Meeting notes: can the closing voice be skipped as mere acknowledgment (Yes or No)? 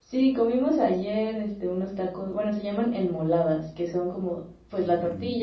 Yes